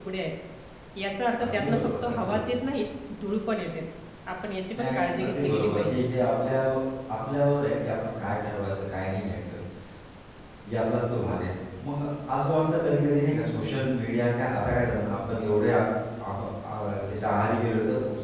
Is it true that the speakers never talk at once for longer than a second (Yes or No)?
No